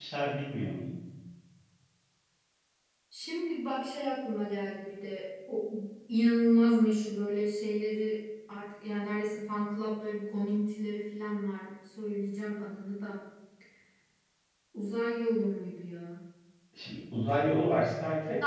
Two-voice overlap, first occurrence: none

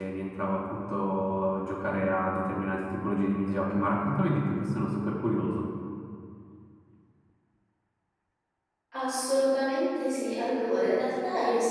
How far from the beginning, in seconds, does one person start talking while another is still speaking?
none

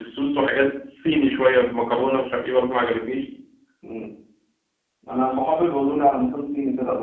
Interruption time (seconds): none

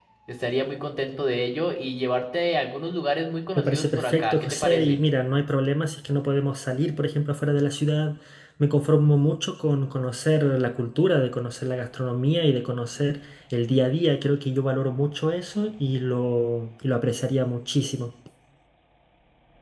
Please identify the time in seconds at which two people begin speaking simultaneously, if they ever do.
3.6 s

